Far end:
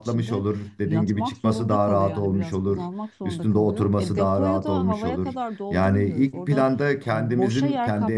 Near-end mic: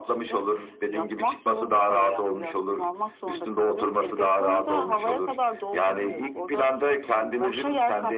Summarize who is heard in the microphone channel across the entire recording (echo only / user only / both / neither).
echo only